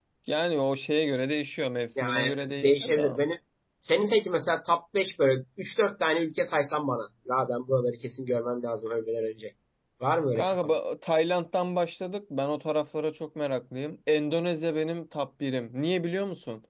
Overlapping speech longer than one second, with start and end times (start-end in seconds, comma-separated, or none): 2.0-3.2